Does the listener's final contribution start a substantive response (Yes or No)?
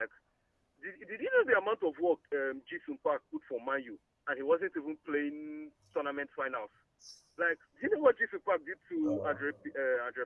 No